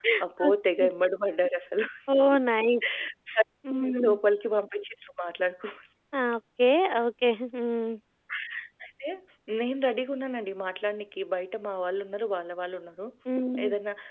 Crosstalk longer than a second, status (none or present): none